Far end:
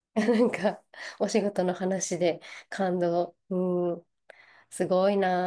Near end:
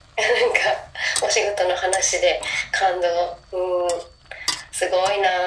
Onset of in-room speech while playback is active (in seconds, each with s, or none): none